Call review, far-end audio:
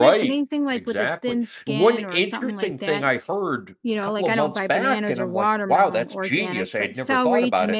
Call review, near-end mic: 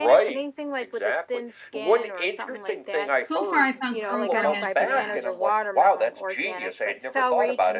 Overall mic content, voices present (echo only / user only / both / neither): both